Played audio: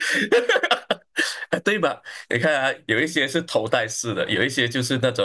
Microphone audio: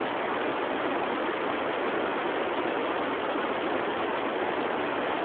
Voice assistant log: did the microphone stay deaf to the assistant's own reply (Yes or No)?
Yes